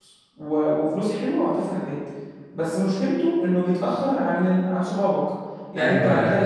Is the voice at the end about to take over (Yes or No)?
No